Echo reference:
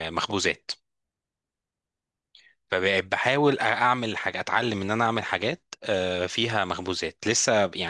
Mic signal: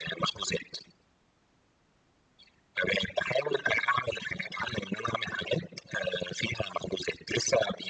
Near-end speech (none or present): none